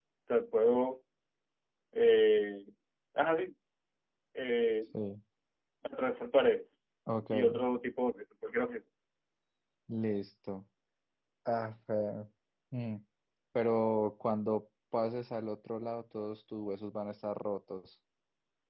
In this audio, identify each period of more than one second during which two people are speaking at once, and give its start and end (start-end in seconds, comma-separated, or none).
none